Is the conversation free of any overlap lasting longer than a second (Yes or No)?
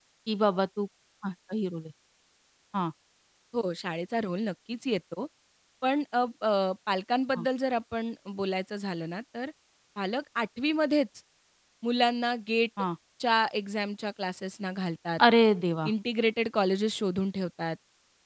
Yes